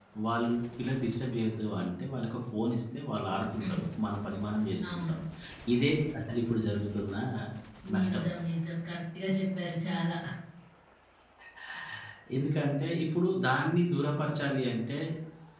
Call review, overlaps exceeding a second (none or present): none